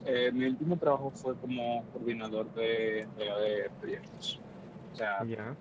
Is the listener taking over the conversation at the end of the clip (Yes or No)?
No